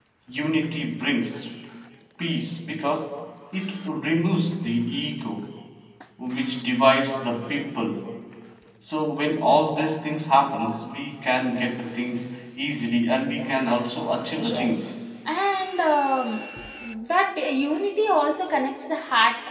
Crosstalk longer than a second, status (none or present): none